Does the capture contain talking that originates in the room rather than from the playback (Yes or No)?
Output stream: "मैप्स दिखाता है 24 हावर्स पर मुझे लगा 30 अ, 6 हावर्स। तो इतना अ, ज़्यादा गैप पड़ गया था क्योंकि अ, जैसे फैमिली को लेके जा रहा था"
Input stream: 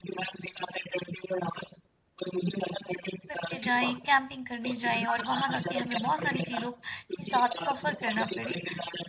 Yes